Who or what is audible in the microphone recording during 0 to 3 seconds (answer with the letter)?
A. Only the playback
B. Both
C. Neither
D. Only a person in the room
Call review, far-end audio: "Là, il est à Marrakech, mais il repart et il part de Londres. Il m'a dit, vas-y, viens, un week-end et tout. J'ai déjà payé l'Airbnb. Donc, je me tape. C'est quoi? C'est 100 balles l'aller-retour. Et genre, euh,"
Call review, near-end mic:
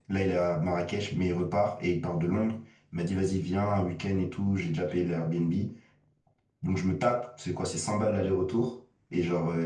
A